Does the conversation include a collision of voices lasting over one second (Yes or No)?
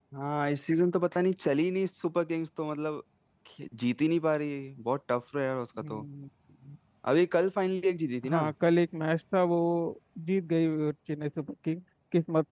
No